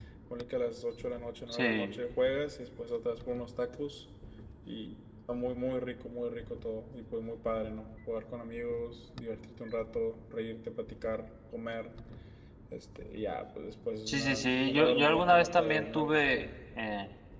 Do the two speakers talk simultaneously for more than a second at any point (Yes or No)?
Yes